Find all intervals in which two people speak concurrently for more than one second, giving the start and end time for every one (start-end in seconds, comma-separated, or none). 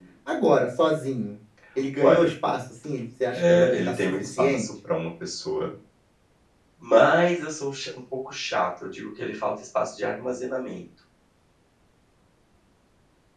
3.4-4.7